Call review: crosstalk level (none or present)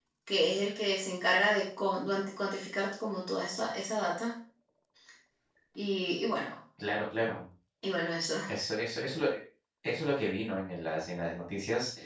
none